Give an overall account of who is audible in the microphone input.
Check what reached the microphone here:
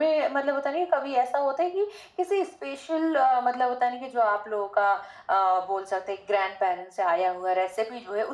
echo only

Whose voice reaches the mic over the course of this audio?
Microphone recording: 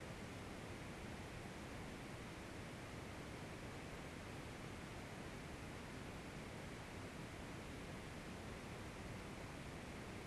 neither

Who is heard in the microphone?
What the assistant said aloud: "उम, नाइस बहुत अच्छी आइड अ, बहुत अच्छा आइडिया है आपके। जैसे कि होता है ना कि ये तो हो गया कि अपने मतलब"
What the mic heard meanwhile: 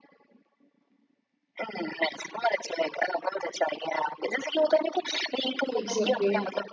both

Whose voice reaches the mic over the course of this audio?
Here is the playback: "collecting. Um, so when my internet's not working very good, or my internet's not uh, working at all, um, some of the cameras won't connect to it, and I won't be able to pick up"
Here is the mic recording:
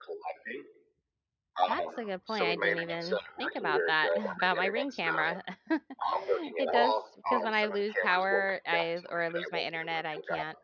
both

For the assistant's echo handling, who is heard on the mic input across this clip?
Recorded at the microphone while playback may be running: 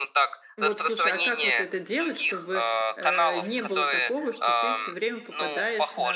both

